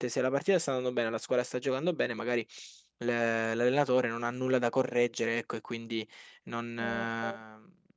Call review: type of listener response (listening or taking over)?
listening